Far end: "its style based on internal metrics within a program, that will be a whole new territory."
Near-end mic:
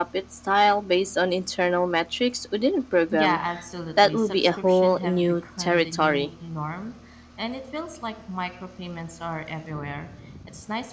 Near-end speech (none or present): present